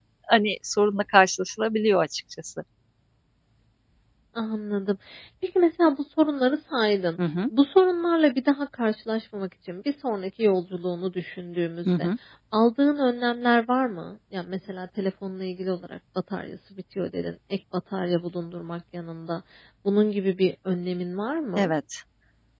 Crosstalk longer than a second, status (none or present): none